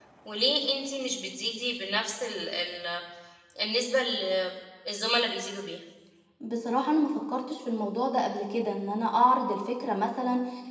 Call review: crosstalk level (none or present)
none